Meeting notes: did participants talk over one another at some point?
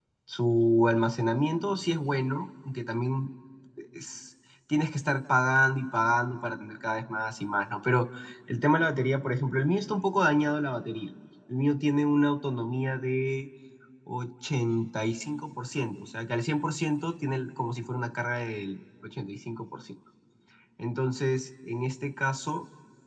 No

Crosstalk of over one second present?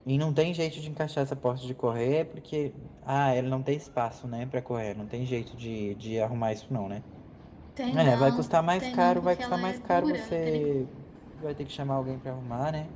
Yes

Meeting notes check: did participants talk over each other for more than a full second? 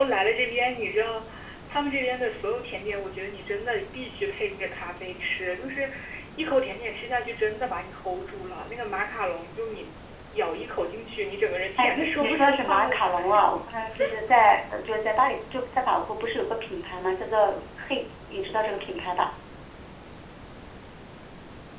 Yes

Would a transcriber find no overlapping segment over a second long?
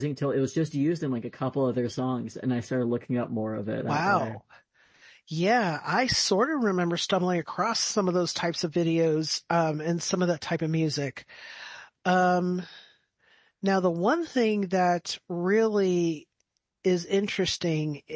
Yes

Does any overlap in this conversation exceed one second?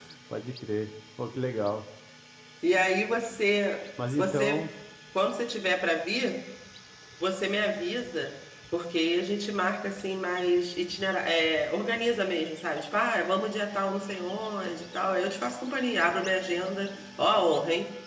No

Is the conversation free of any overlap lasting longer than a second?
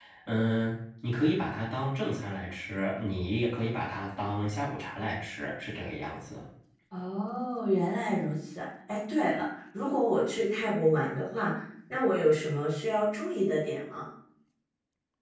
Yes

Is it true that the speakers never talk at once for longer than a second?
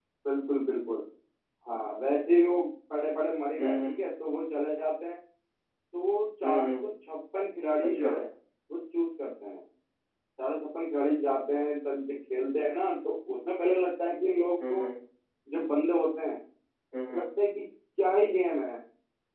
Yes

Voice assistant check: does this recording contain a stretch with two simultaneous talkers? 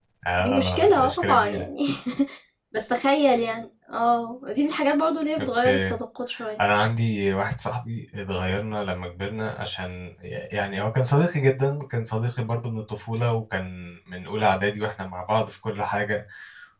Yes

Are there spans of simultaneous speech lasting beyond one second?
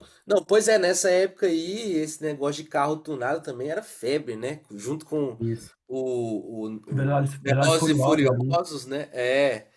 Yes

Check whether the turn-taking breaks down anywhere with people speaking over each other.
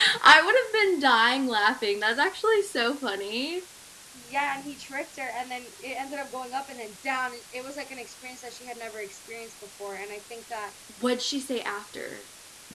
No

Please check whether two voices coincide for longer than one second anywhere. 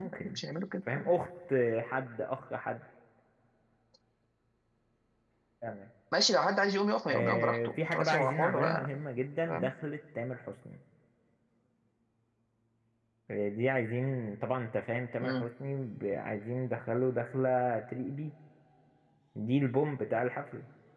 Yes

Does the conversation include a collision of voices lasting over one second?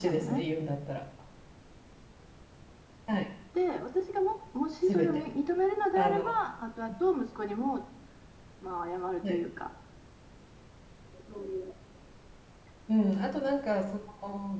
No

